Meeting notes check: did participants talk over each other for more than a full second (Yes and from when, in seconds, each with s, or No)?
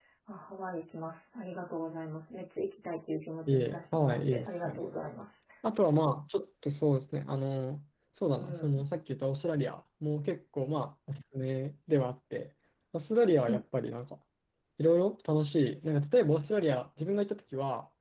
Yes, from 3.5 s